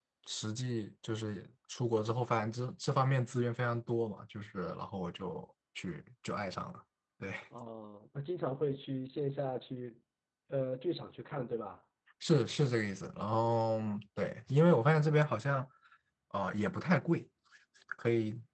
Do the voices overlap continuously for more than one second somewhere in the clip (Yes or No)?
No